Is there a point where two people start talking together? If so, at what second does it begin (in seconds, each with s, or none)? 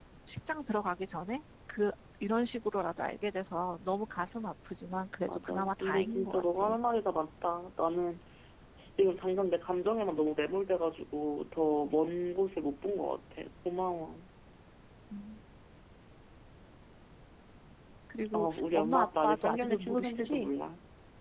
5.2 s